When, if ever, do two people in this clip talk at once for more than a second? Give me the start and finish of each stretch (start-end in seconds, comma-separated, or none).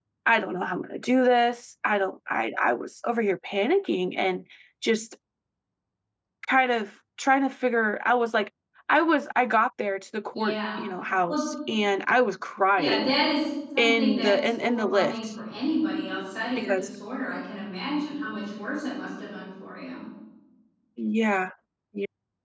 13.8-15.2